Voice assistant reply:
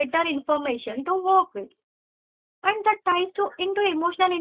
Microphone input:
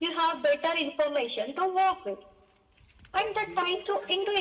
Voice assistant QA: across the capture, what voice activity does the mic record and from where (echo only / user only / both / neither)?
both